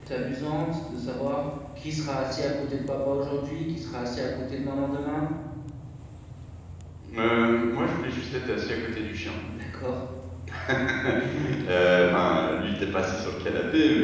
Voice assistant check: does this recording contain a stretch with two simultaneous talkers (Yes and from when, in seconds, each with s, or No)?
No